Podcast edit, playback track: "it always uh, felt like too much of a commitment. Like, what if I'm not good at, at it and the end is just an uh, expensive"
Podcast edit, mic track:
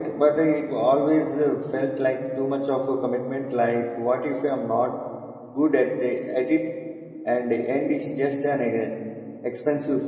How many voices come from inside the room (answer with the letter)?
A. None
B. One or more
A